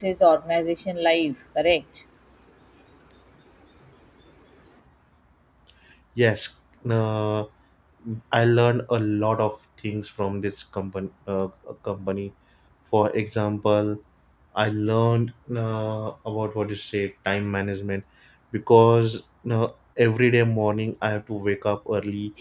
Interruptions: none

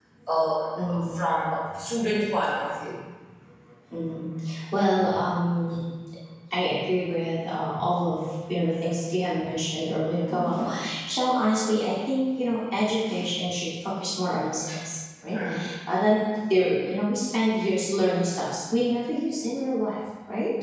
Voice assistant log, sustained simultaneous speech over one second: none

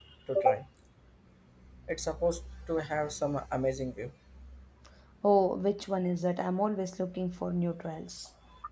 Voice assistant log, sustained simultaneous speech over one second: none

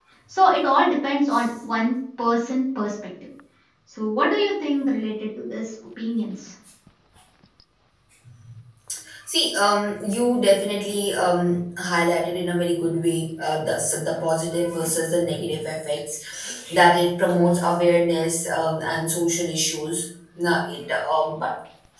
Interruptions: none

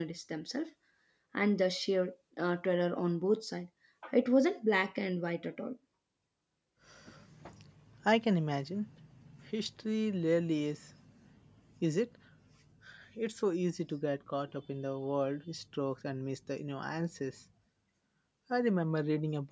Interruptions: none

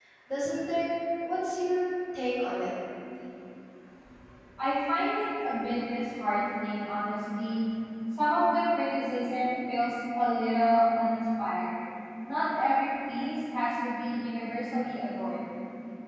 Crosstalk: none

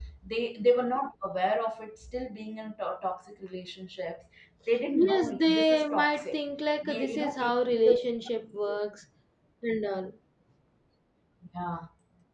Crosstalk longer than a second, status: present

